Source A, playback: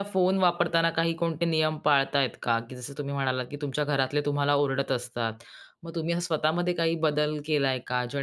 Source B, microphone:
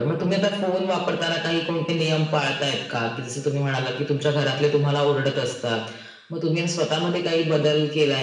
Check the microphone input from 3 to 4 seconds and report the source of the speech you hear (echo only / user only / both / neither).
echo only